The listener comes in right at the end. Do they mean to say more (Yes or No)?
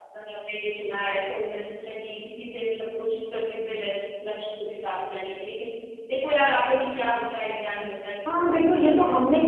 Yes